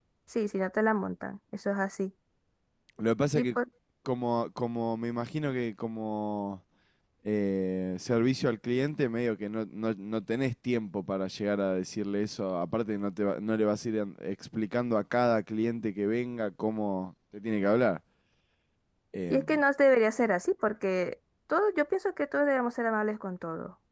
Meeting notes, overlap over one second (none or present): none